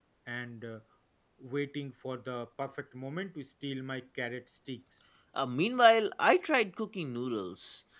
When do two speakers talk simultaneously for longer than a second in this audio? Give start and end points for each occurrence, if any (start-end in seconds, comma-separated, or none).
none